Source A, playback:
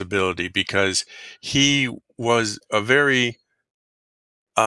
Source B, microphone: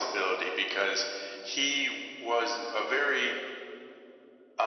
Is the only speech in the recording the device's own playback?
Yes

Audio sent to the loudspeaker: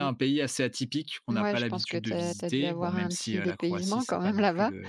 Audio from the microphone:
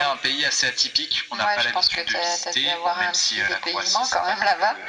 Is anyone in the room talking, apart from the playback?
No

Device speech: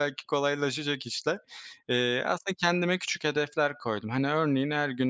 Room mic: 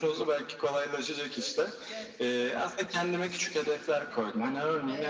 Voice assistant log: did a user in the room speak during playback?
Yes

